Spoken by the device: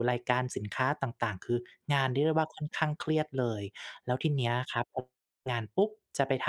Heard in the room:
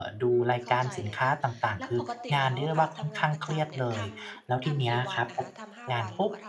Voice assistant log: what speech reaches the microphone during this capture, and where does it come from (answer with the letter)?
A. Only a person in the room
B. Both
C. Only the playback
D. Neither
B